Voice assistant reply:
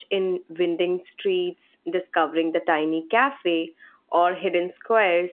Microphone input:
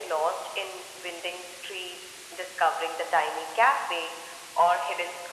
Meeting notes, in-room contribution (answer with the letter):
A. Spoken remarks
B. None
B